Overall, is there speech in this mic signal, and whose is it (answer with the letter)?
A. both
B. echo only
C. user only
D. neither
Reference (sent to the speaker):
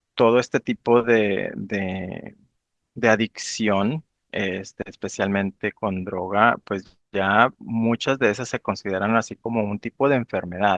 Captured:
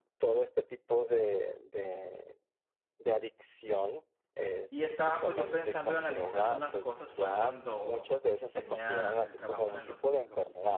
A